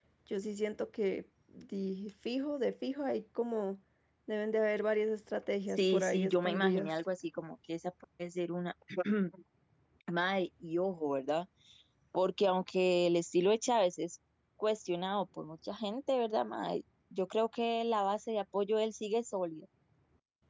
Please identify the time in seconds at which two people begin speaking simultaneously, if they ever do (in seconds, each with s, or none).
5.7 s